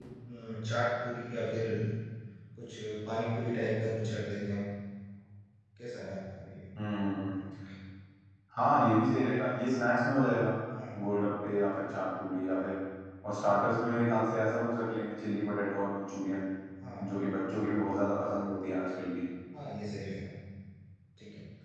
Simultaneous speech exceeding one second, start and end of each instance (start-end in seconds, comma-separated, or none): none